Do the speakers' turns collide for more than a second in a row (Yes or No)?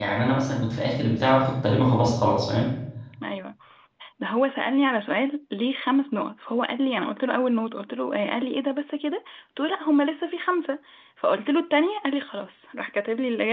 No